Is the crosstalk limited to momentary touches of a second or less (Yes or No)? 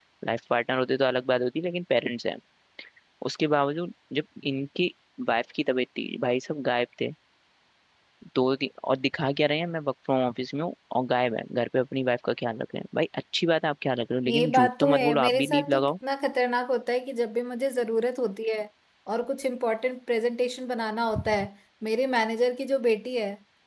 No